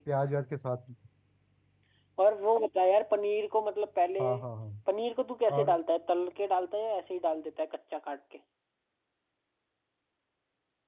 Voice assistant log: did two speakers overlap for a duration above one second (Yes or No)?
No